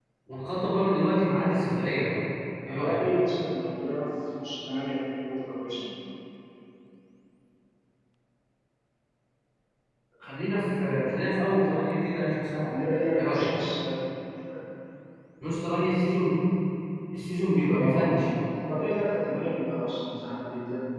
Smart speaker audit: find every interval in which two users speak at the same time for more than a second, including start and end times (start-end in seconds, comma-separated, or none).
none